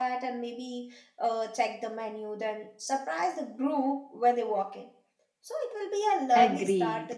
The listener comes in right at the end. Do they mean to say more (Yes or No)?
Yes